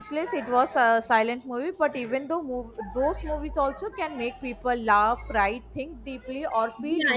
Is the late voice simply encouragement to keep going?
No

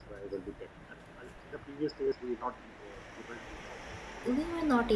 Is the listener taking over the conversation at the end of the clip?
Yes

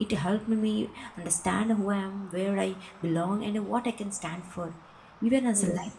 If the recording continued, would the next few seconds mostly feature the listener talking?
No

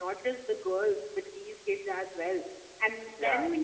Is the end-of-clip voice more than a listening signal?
No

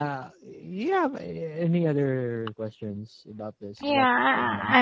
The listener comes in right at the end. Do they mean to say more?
Yes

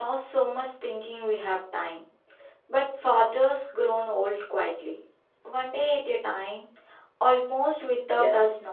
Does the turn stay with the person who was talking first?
No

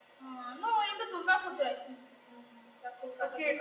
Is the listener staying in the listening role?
No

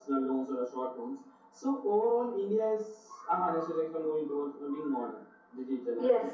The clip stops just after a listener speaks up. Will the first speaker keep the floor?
No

